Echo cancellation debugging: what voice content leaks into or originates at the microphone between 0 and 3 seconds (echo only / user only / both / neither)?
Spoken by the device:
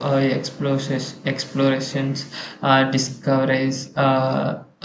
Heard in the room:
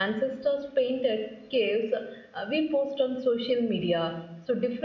user only